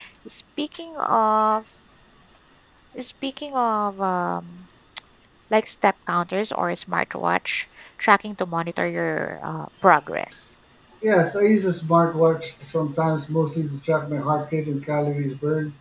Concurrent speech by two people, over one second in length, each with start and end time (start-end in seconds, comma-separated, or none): none